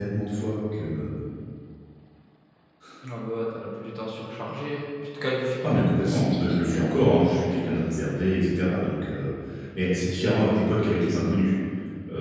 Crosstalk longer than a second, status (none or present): present